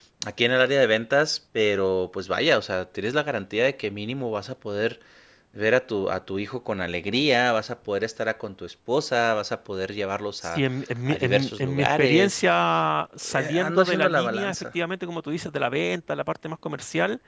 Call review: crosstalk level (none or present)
present